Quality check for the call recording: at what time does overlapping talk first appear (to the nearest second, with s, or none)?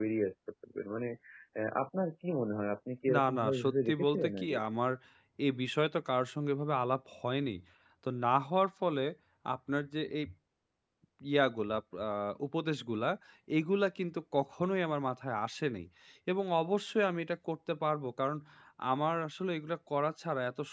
3 s